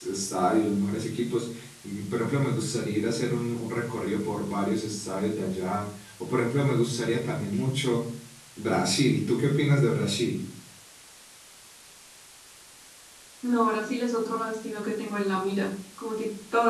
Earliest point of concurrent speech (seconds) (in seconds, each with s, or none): none